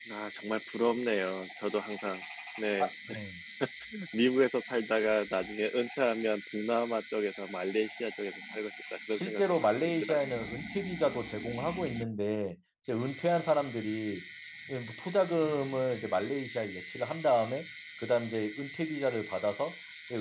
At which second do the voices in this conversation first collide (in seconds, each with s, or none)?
9.1 s